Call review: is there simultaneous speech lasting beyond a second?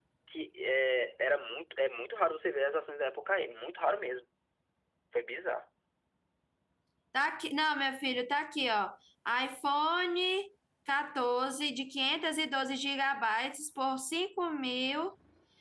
No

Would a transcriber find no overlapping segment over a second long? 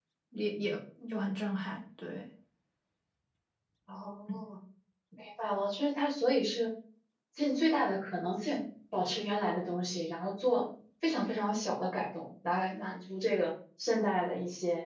Yes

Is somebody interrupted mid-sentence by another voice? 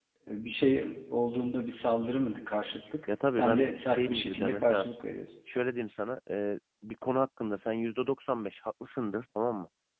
Yes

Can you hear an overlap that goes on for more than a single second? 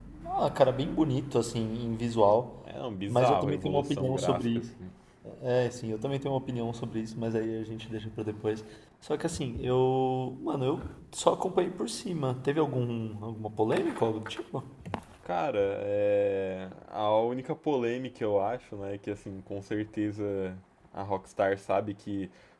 Yes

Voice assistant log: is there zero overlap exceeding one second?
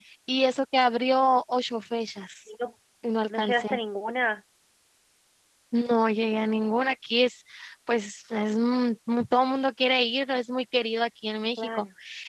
Yes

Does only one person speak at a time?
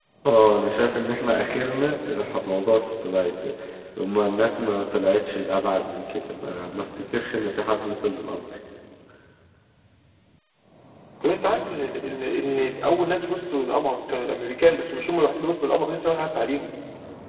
Yes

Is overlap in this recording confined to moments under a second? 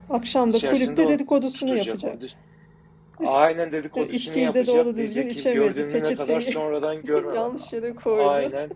No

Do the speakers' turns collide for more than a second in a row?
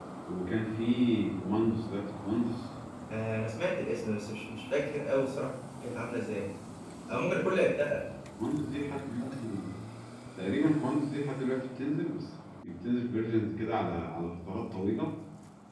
No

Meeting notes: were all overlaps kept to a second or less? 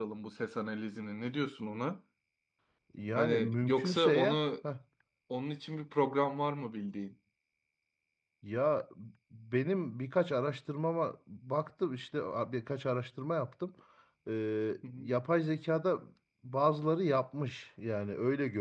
No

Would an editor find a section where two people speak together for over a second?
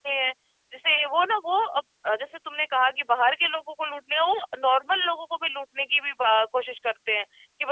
No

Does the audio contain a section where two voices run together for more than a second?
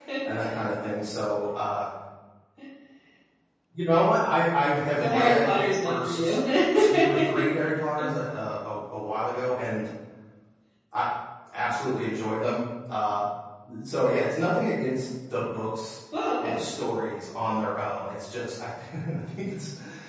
Yes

